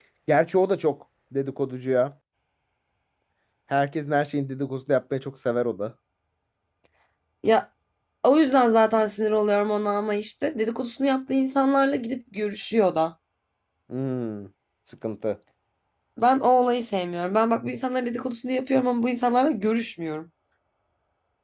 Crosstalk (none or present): none